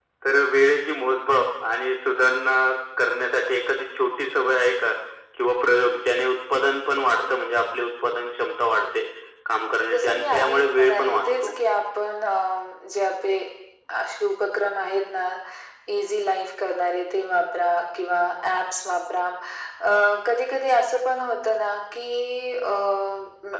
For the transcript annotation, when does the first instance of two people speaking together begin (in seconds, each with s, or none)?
9.9 s